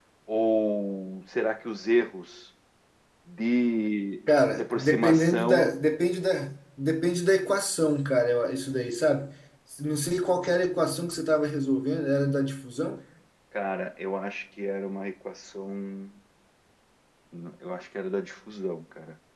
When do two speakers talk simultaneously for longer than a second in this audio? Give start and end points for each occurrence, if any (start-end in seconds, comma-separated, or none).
4.5-5.7